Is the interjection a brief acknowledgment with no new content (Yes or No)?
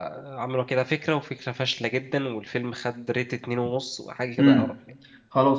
No